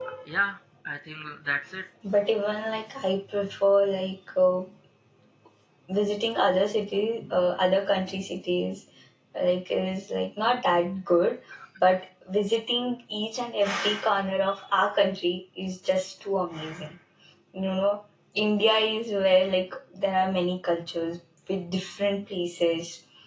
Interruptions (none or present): none